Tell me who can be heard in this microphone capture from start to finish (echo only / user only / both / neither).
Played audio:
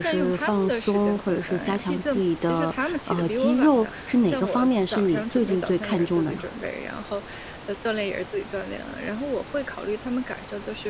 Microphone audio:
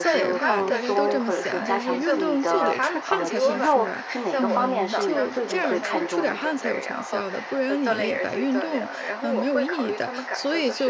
both